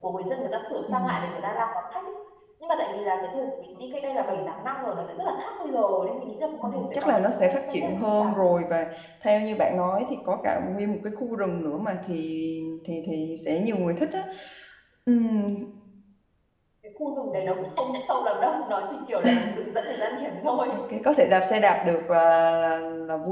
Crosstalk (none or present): present